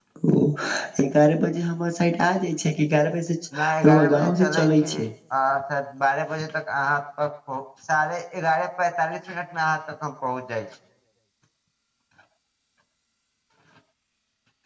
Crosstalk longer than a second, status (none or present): present